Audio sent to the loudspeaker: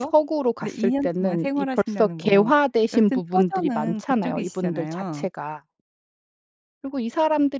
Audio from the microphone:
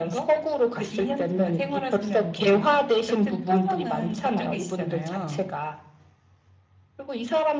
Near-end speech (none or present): none